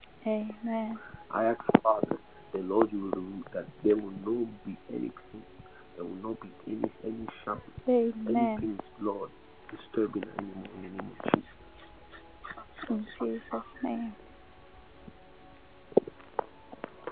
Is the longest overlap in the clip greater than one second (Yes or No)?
No